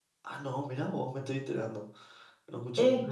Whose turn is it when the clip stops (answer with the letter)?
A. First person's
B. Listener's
B